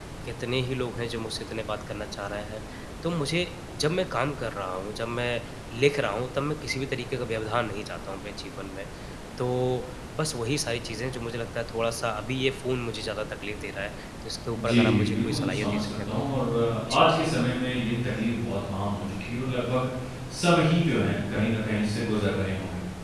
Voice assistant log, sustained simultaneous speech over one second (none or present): present